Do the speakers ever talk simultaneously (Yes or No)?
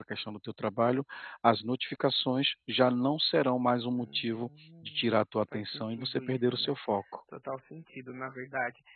Yes